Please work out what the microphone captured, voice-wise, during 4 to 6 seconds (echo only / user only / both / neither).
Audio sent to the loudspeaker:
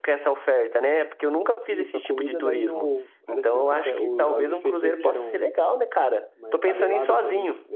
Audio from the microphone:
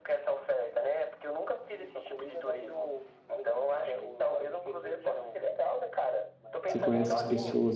echo only